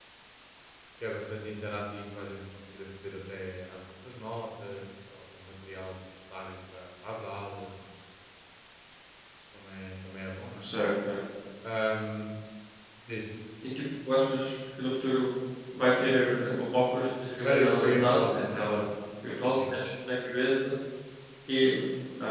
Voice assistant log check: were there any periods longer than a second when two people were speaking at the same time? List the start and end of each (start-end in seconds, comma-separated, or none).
17.4-18.8